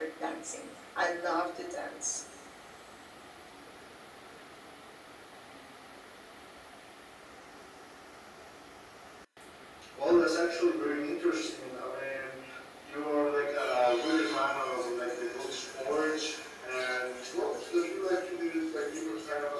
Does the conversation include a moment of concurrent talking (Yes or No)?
No